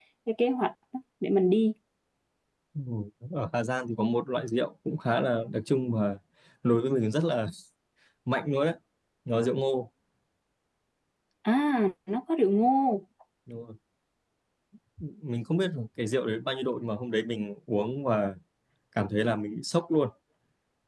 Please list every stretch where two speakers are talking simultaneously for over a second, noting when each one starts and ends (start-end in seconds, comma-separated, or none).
none